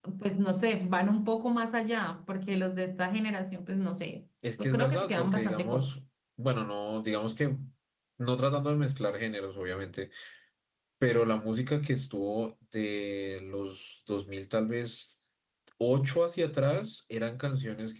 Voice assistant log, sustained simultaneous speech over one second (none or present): present